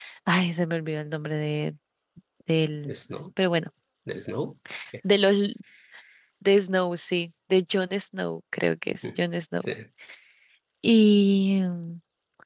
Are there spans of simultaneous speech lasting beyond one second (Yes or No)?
No